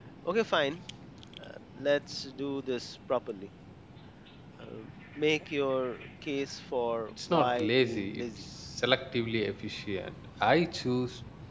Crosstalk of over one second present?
Yes, from 7.1 s

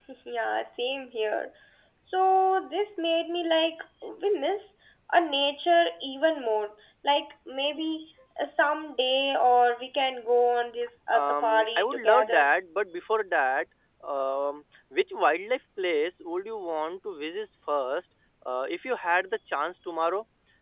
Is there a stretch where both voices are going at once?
Yes, from 11.1 s

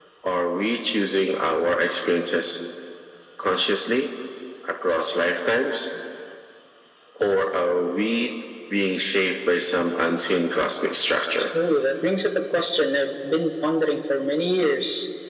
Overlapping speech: No

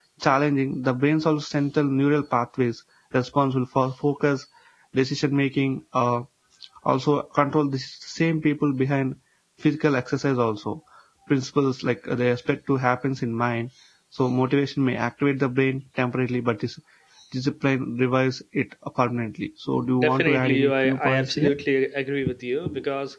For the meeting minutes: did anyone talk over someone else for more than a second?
Yes, from 20.0 s

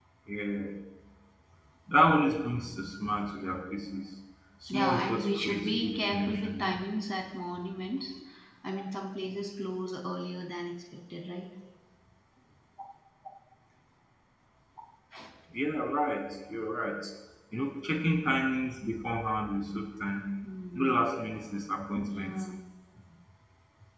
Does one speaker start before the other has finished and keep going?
Yes, from 4.7 s

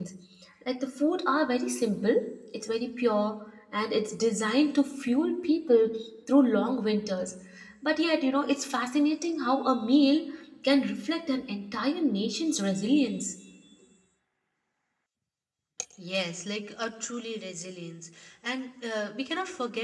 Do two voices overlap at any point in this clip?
No

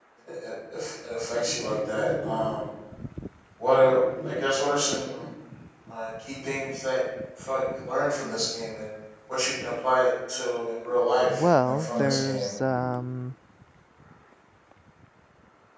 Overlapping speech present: Yes, from 11.3 s

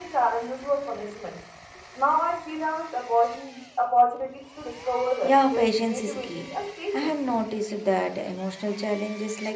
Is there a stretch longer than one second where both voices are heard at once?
Yes, from 5.2 s

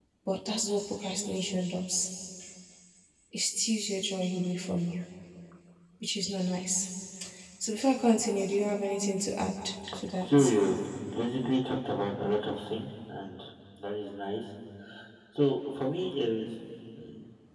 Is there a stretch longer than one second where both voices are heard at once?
No

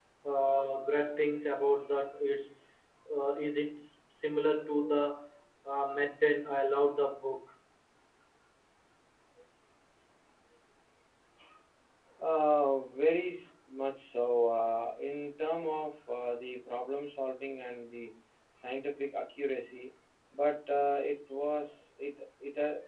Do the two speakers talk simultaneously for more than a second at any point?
No

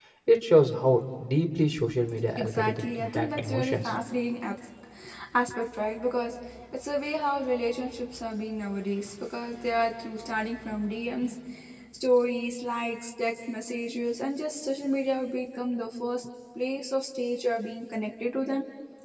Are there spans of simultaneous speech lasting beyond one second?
Yes, from 2.4 s

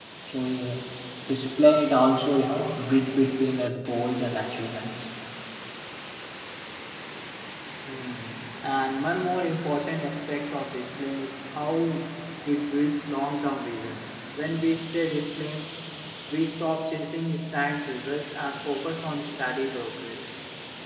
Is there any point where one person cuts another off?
No

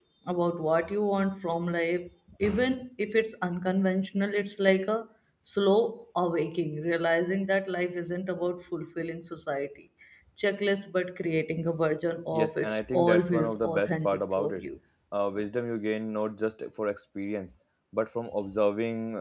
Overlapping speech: Yes, from 12.3 s

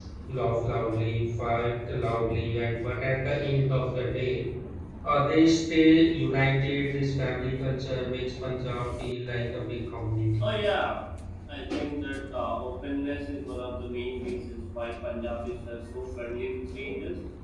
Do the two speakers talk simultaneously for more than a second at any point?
No

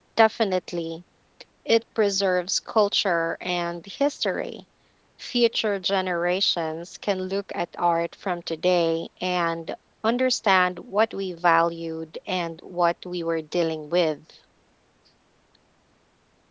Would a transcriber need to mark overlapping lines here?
No

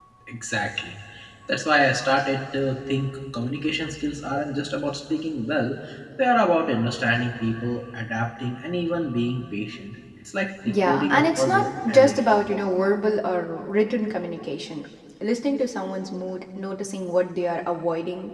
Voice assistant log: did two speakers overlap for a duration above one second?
Yes, from 10.6 s

